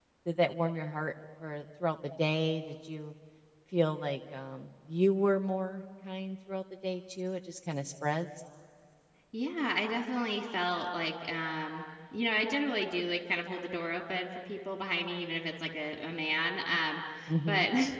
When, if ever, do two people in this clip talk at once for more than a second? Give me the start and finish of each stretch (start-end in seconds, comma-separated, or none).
none